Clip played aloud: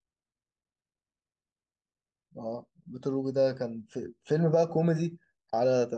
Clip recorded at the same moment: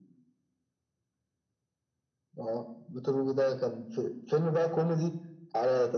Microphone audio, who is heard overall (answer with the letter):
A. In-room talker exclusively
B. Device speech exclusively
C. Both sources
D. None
B